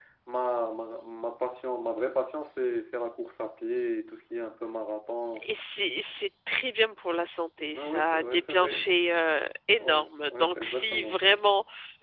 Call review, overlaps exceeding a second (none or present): present